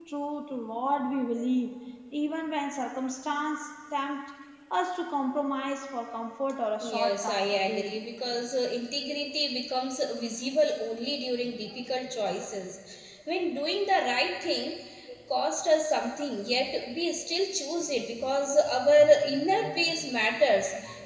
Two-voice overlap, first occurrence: 7 s

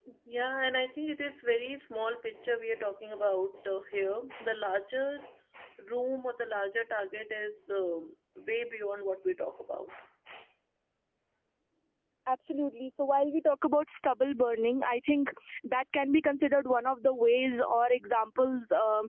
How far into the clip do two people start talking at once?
none

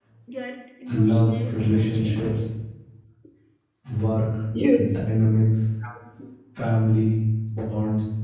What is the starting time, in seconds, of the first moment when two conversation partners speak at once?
1 s

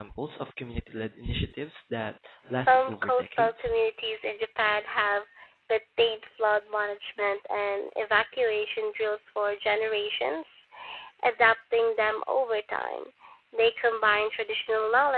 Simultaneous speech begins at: 2 s

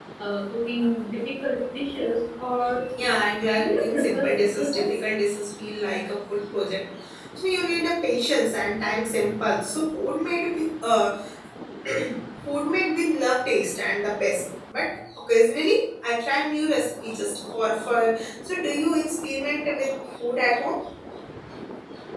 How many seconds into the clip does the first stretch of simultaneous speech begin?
4 s

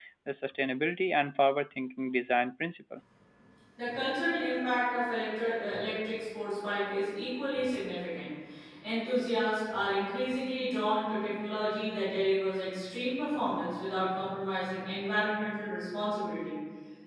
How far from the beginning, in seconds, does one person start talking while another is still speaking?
none

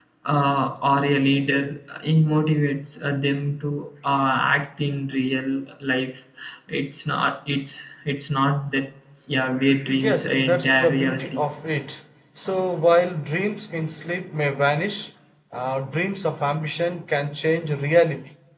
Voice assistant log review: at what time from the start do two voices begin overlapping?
10 s

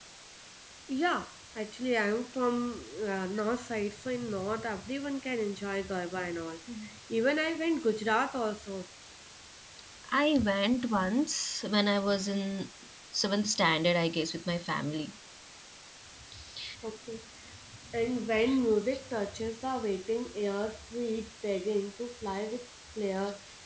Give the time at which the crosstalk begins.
none

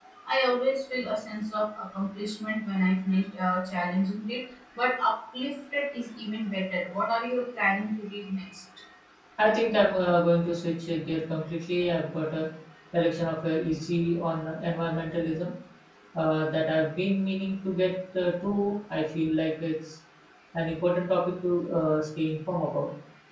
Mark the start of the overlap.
none

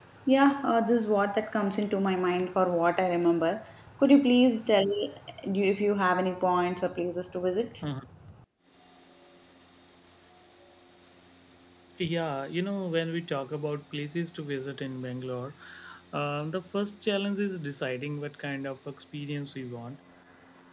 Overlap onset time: none

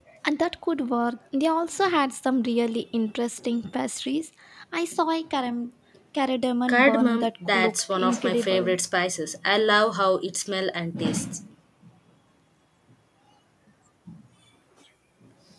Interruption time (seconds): 7 s

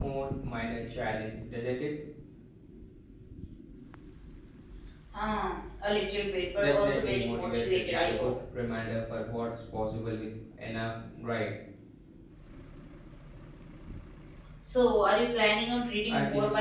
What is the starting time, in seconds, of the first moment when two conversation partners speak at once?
7 s

